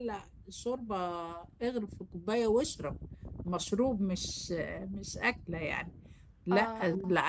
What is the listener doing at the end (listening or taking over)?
listening